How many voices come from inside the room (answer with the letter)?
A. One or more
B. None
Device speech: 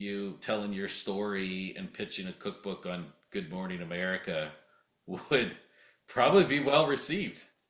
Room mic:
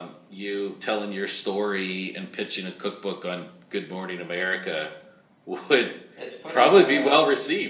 A